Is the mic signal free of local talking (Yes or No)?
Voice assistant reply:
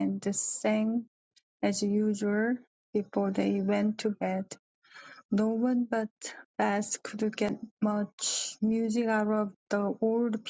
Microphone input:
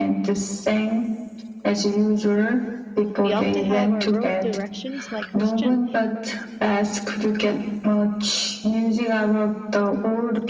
No